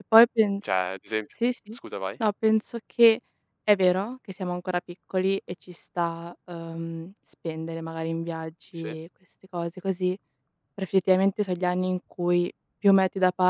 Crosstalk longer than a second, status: none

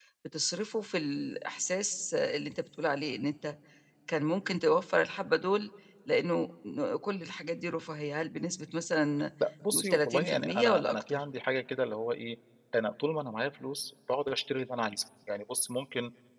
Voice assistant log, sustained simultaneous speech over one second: present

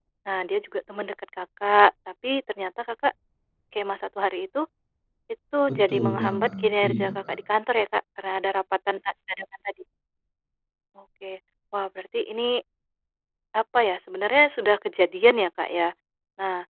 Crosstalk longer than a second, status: present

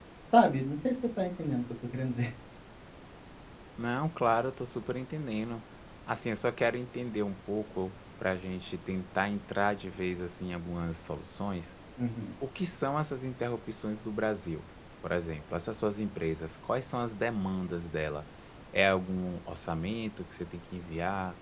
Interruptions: none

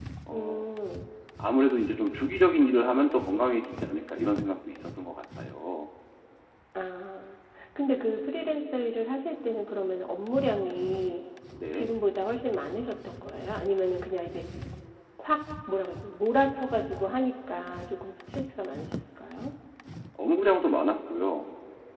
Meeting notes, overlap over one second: none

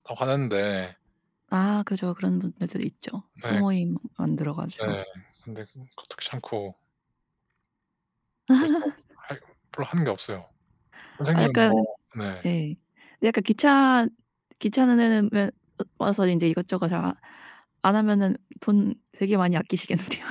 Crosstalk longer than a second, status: none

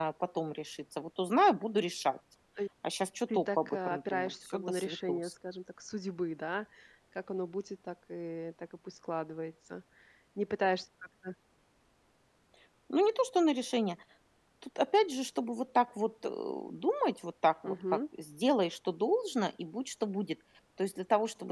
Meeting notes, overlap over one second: present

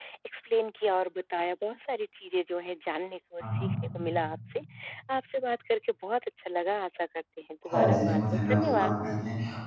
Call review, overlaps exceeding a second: present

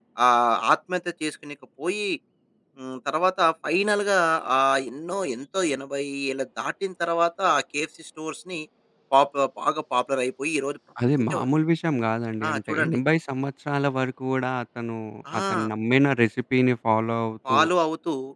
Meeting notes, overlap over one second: none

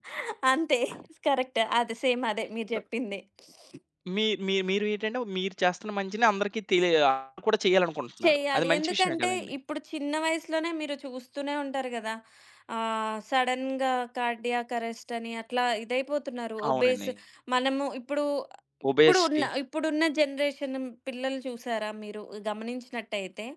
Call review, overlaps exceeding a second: present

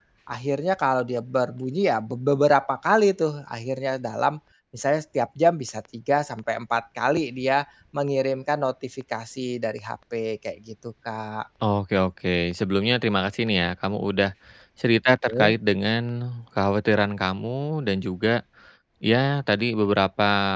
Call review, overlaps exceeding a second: none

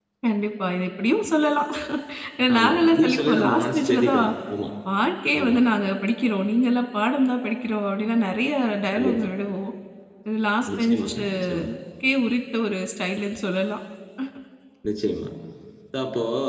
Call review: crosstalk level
present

